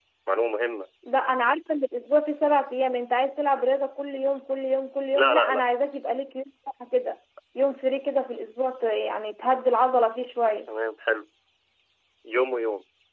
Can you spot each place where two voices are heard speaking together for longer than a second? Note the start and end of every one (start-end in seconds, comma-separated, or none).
none